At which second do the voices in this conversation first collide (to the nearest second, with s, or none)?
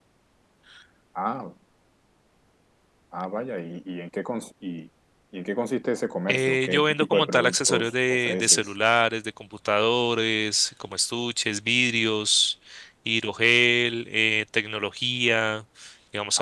6 s